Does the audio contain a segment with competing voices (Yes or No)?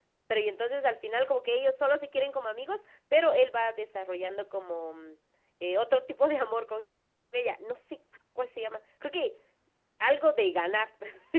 No